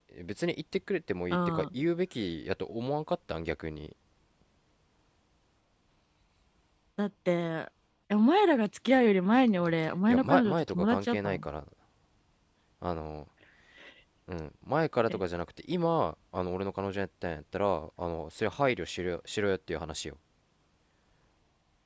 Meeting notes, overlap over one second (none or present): present